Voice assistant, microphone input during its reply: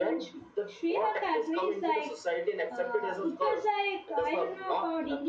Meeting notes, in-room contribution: present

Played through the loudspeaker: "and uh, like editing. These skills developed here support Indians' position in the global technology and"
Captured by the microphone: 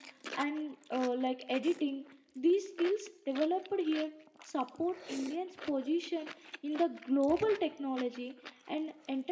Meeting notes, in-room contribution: none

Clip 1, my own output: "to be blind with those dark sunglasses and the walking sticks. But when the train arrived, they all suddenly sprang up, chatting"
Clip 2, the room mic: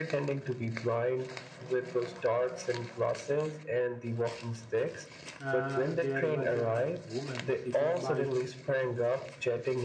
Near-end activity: present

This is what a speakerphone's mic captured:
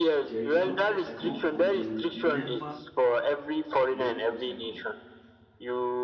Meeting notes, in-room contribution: present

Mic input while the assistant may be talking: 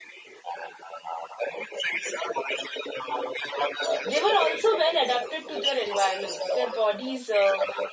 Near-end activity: present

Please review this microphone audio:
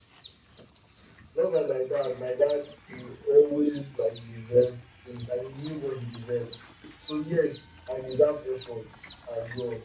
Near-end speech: none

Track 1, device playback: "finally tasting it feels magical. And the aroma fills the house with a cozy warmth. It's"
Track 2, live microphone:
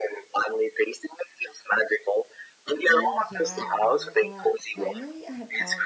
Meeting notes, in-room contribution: present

